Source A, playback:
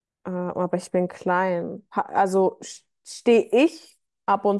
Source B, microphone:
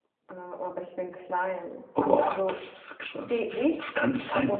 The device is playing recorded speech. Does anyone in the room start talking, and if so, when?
1.9 s

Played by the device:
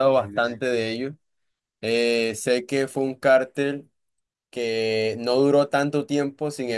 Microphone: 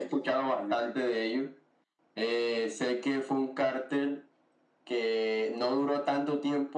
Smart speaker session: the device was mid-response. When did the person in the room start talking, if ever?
none

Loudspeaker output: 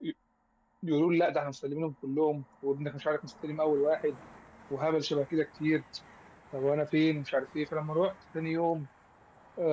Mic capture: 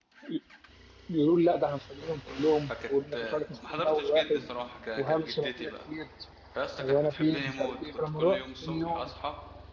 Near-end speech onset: 2.7 s

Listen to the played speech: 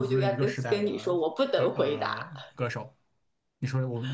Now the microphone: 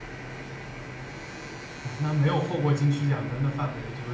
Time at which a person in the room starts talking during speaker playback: 1.8 s

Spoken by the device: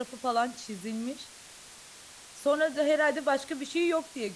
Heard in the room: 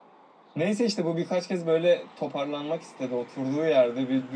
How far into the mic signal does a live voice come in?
0.6 s

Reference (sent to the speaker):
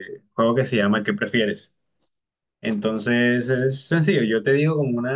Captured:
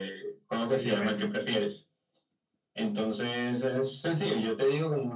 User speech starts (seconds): 0.6 s

